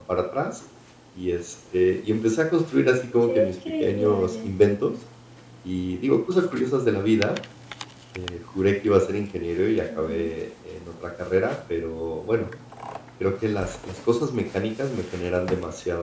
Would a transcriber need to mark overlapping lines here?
Yes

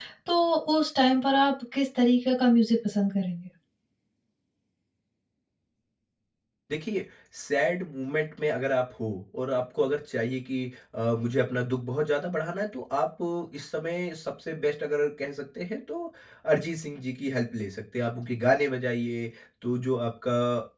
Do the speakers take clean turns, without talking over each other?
Yes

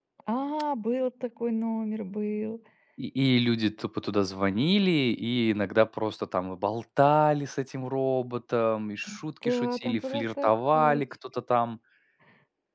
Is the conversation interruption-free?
No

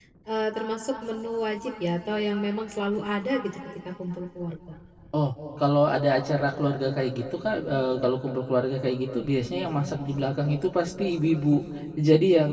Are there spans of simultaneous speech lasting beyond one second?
No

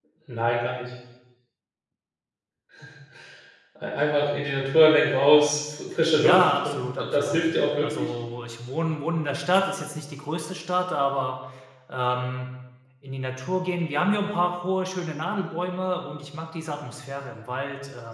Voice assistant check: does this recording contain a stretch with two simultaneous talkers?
Yes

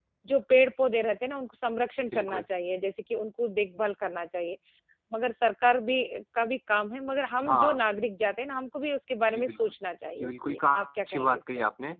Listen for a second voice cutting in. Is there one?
Yes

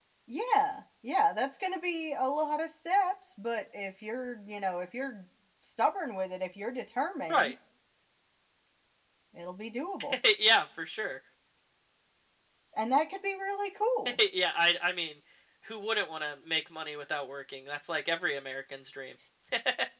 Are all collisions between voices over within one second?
Yes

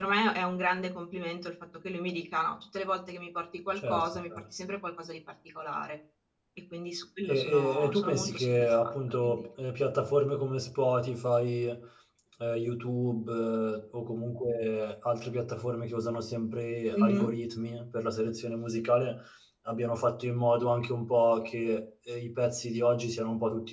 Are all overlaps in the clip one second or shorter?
No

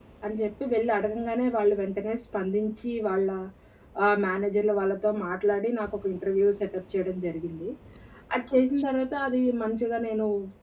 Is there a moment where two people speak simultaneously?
No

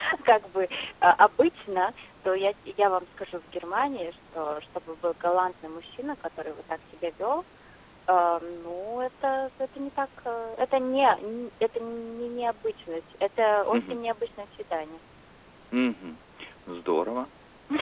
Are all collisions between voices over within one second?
Yes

